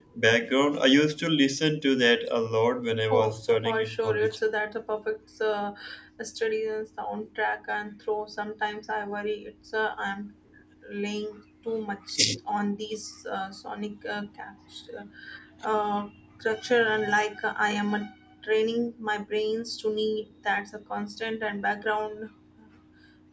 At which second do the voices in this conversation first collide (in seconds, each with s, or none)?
3.1 s